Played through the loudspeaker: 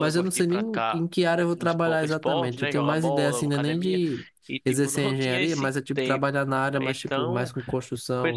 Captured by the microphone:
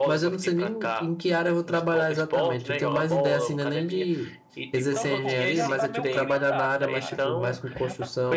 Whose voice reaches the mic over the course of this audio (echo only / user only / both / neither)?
both